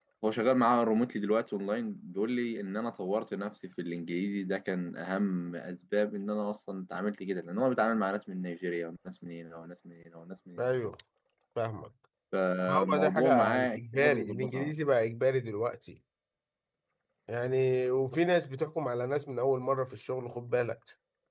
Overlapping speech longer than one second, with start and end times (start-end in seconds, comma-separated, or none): 12.7-14.7